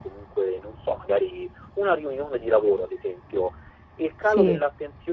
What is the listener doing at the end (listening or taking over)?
listening